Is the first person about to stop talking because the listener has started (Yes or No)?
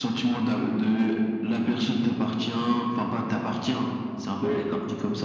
No